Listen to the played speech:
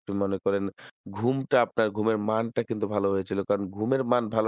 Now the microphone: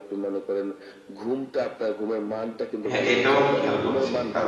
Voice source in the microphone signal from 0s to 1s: echo only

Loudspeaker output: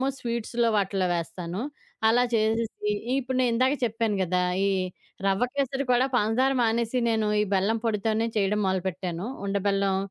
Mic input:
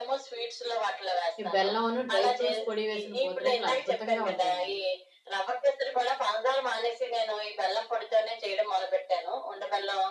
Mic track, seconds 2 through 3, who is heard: both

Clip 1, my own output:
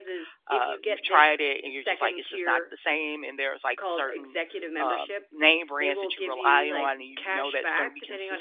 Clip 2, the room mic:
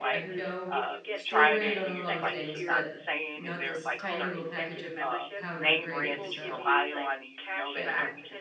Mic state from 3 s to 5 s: both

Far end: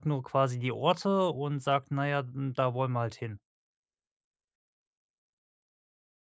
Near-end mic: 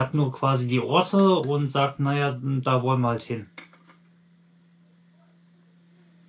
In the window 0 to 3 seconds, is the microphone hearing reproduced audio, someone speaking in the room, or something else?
echo only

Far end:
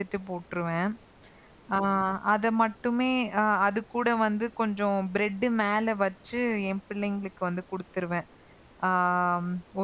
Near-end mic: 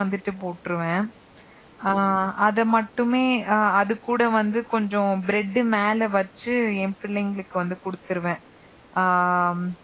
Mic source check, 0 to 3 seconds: echo only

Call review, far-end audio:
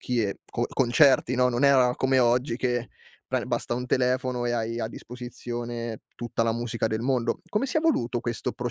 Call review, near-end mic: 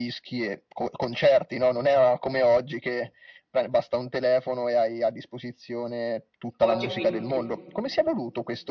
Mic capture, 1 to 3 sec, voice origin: echo only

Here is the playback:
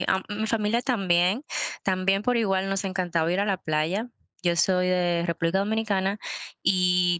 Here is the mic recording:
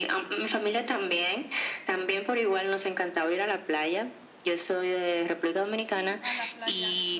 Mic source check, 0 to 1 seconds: echo only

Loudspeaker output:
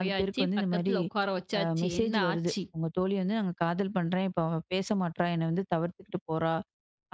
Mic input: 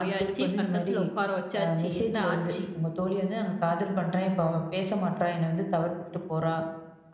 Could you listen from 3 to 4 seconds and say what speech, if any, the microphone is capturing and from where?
echo only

